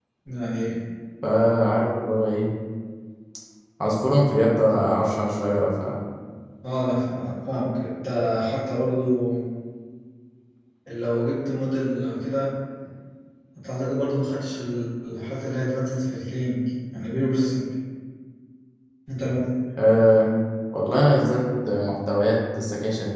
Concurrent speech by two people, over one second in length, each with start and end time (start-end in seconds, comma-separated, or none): none